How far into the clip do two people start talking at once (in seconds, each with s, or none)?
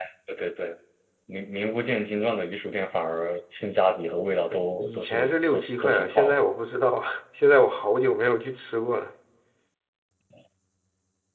4.5 s